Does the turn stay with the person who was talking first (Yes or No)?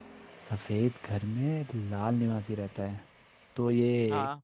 Yes